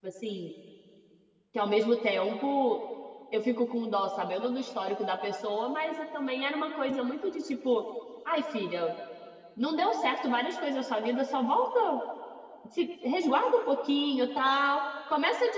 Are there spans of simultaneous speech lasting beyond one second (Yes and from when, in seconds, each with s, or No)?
No